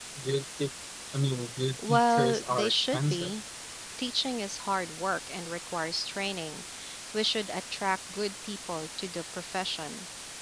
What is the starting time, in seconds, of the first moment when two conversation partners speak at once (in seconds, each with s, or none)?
1.9 s